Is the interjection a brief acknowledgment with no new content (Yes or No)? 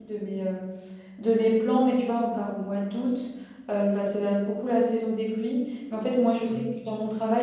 Yes